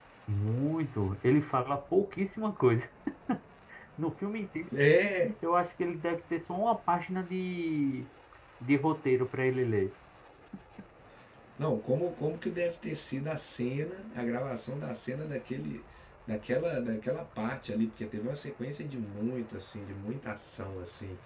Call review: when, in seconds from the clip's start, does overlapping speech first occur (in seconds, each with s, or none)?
none